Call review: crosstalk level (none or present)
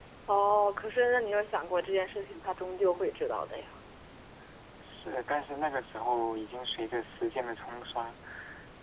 none